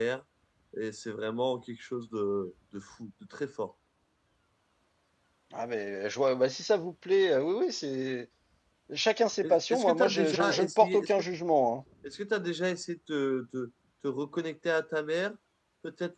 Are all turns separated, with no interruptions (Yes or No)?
No